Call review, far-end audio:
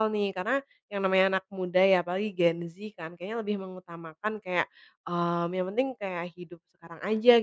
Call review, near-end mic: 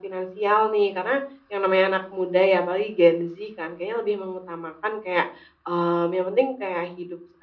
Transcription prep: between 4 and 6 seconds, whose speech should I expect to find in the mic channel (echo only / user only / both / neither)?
echo only